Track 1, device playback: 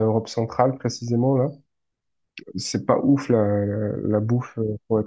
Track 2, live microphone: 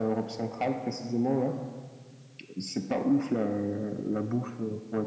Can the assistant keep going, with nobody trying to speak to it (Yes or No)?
Yes